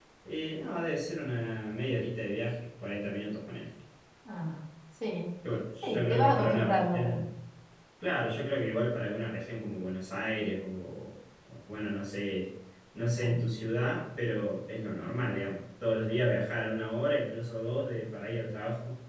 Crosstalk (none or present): present